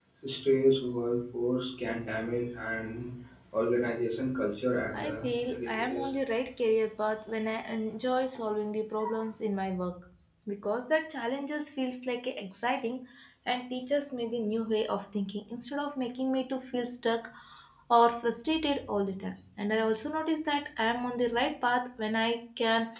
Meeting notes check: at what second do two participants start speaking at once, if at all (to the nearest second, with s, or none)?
5 s